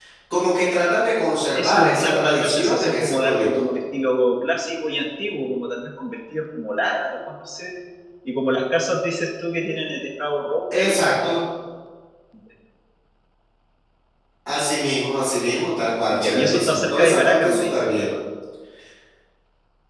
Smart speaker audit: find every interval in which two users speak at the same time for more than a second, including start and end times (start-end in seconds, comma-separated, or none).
1.4-3.5, 16.1-18.1